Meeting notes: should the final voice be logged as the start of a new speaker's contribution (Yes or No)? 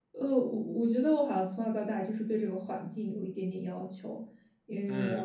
Yes